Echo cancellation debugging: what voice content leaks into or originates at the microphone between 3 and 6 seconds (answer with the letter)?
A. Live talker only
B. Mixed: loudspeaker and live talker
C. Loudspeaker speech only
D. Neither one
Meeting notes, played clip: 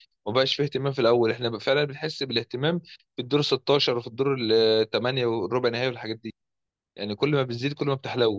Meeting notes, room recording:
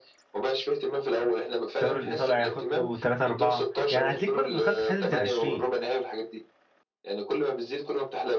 B